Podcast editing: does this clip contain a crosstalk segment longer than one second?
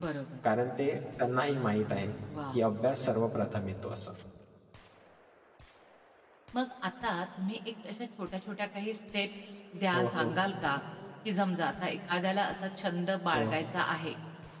No

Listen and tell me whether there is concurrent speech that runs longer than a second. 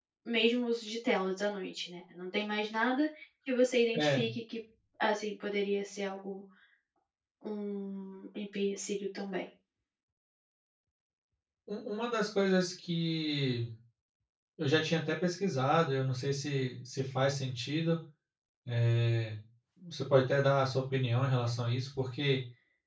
No

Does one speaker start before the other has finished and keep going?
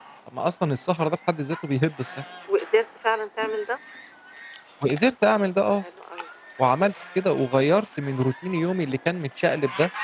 No

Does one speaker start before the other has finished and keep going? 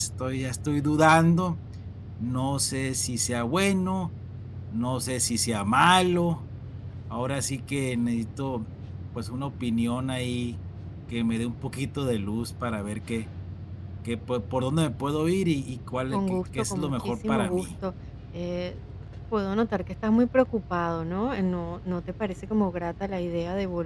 Yes, from 16.1 s

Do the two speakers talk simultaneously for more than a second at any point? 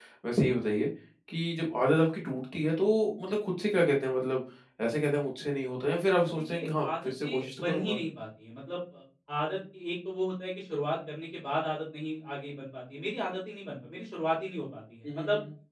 Yes, from 6.5 s

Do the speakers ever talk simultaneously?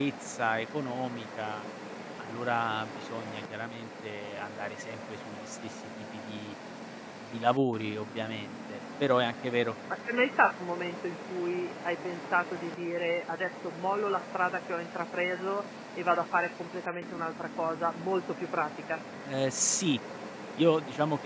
No

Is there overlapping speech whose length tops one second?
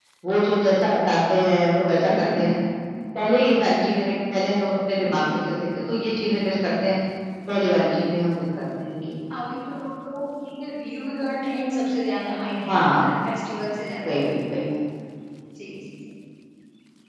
No

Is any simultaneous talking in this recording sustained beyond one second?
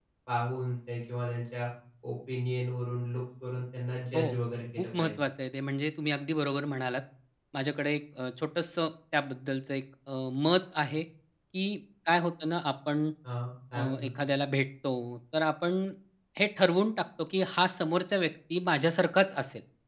No

